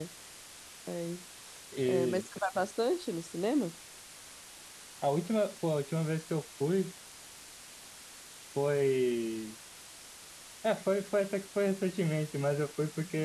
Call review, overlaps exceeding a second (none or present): none